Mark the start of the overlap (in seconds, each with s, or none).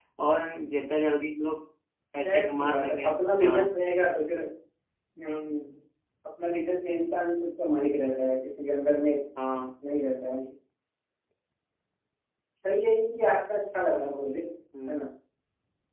2.2 s